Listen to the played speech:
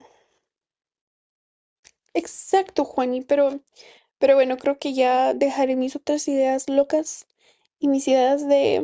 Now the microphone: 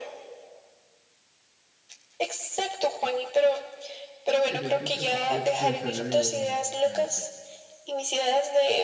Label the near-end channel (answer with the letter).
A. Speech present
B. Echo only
A